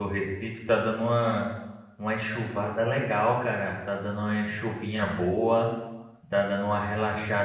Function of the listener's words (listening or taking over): listening